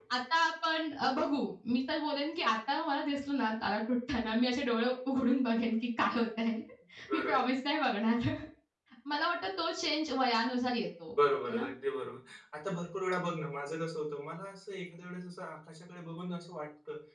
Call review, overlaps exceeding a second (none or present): none